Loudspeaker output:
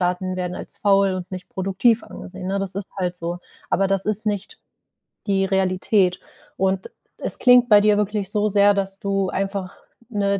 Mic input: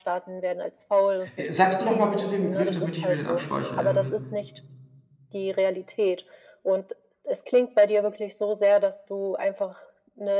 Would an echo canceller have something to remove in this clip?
Yes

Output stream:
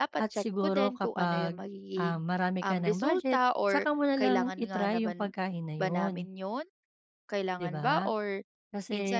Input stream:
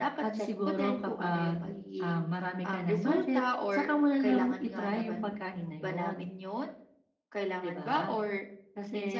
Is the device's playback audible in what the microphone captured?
Yes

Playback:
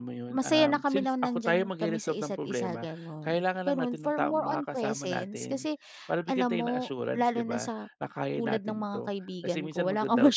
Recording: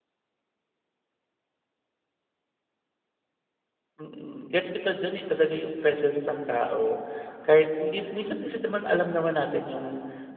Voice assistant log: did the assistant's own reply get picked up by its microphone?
No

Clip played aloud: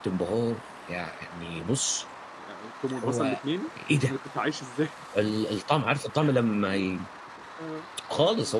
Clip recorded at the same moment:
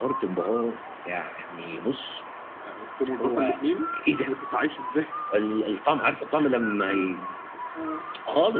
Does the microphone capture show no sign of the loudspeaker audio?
No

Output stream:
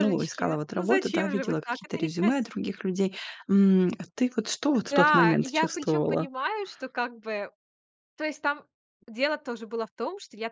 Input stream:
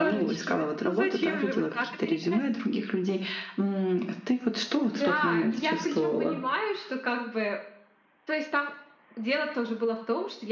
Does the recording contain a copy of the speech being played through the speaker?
Yes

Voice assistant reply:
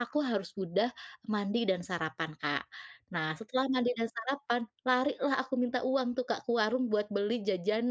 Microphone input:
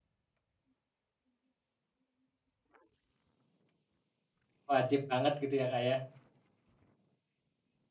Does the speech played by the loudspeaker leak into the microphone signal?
No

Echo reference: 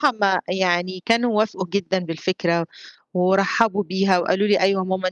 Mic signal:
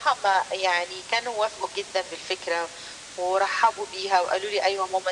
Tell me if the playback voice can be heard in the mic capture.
Yes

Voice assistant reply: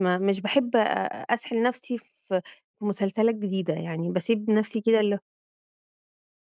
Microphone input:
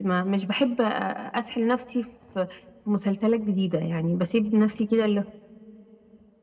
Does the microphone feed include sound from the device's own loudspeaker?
Yes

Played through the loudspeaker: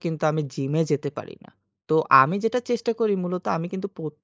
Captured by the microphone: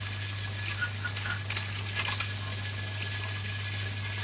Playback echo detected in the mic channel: No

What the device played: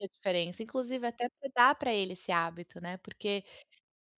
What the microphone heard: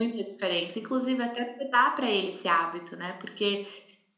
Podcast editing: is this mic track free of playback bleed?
No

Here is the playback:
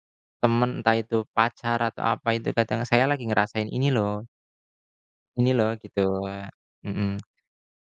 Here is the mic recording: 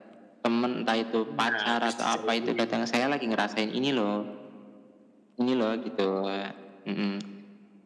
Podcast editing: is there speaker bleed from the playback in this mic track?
Yes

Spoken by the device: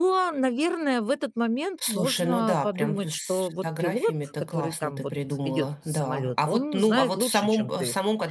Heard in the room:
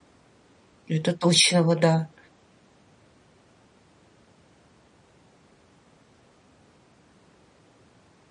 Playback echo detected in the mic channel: No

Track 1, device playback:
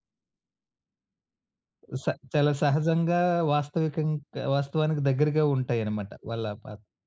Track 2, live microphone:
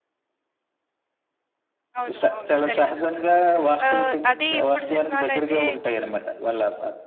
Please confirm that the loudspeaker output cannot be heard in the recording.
No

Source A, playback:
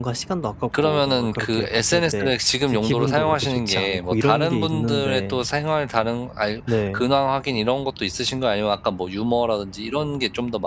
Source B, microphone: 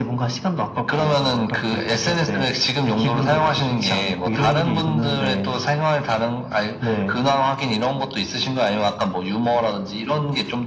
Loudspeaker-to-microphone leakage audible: Yes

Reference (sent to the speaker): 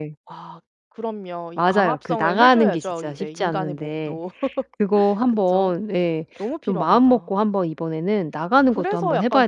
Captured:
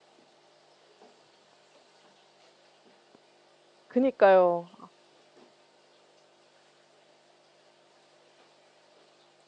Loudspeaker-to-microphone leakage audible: No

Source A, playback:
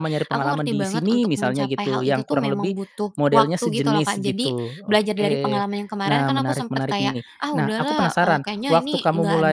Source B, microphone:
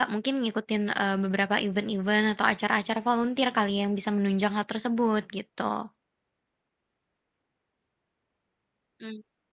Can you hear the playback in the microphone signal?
No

